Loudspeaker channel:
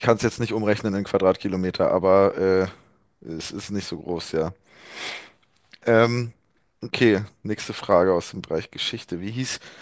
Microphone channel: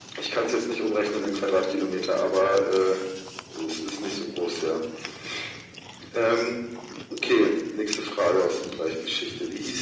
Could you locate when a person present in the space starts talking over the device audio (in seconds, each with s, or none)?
none